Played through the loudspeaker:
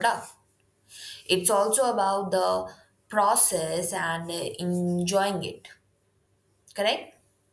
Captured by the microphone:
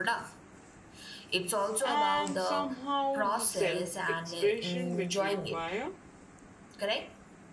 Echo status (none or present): present